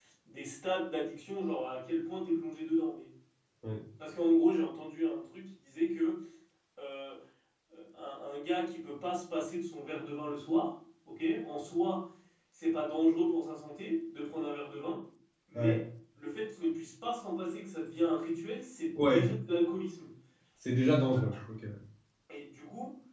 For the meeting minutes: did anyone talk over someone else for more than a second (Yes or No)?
No